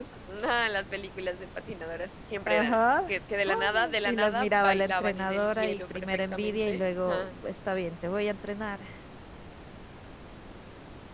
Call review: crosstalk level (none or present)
present